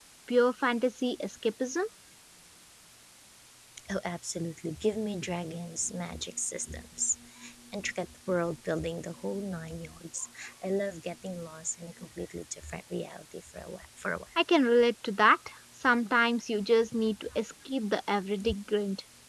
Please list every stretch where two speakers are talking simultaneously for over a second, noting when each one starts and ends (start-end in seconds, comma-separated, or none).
none